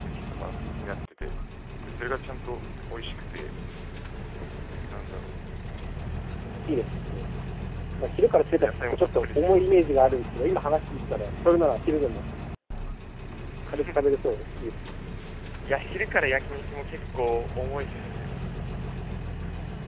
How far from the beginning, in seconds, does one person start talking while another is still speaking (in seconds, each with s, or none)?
8.6 s